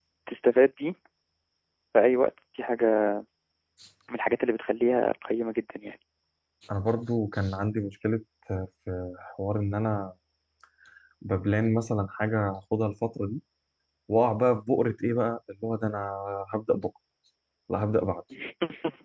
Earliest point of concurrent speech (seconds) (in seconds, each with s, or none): none